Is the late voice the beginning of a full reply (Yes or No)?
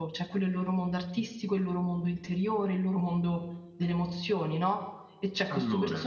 No